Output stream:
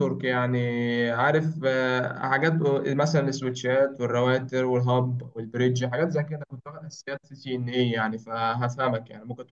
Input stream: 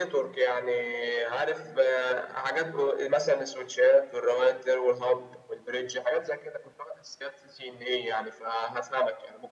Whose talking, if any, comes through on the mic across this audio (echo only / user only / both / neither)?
echo only